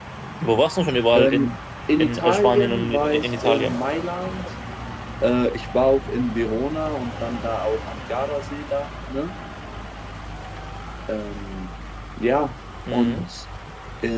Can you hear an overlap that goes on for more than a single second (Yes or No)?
Yes